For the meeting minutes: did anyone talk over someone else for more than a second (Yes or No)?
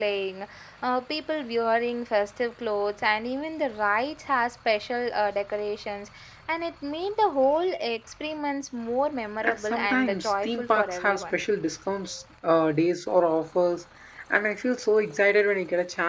Yes